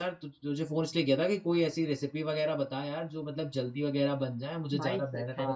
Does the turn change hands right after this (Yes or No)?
Yes